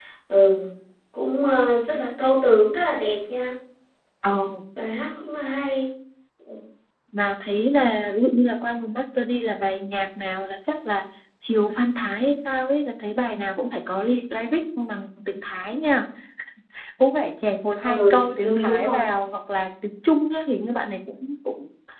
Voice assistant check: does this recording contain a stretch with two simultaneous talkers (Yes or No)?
Yes